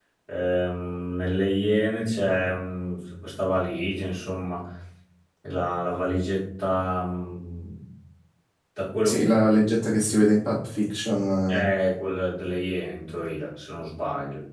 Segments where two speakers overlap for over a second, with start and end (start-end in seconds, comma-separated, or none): none